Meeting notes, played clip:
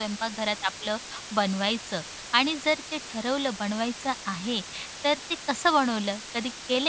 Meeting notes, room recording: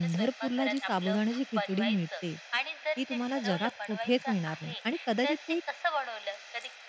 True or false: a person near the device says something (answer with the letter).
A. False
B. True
B